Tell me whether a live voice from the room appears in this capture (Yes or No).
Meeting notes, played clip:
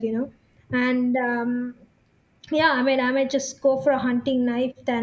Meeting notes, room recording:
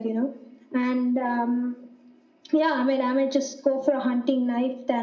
No